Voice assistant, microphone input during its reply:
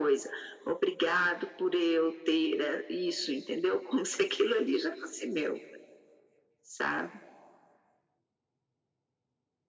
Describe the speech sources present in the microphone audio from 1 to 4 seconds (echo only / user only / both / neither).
echo only